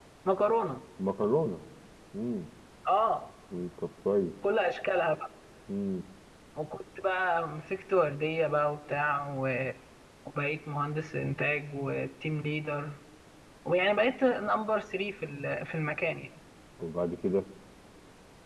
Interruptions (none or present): none